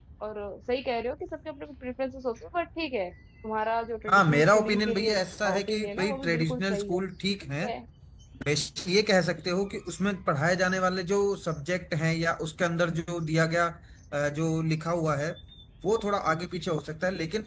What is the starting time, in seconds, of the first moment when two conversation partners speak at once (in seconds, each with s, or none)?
4.1 s